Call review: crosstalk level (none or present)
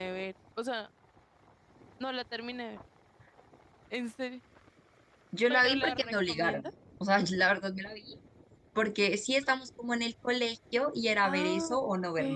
present